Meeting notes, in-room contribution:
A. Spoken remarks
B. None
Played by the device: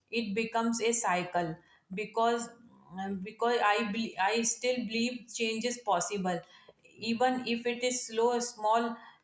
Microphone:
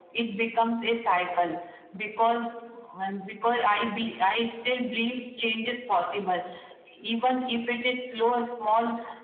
B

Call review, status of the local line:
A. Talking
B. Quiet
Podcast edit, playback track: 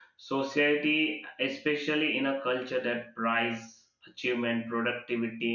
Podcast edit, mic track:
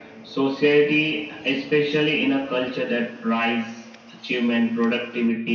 B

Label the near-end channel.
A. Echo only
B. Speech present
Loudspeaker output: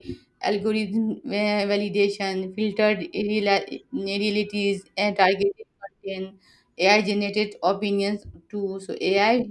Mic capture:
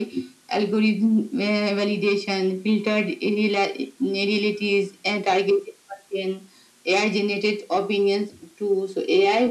A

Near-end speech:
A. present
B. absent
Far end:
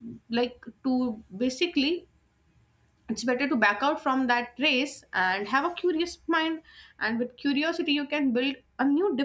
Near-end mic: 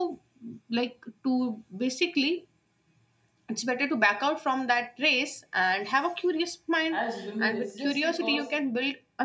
A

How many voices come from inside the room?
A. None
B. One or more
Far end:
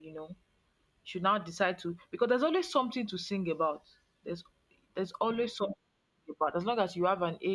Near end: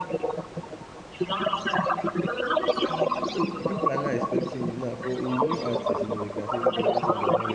B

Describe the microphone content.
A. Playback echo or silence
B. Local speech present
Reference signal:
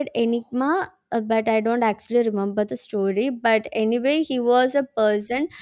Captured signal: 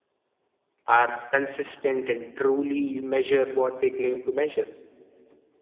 B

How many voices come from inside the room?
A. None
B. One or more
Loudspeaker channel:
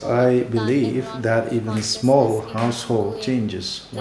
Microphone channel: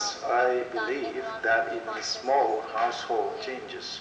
A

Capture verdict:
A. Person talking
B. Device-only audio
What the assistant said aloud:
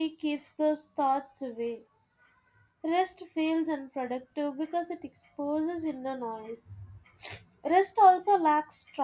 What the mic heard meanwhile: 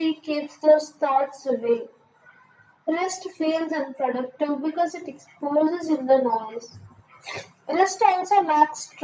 B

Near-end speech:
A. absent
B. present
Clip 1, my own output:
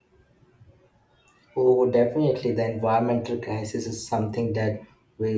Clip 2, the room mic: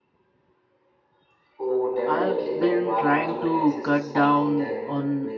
B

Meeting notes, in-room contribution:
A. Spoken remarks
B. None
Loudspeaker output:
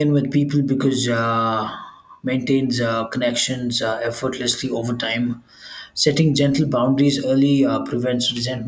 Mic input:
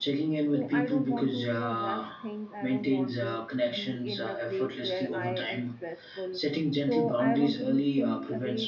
A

